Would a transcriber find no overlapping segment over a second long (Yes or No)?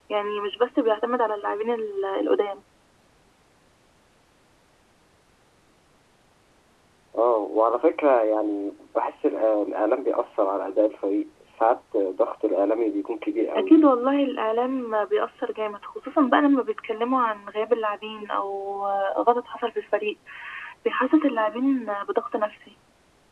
Yes